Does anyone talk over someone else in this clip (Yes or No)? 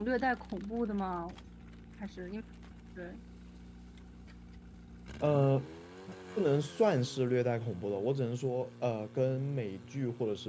No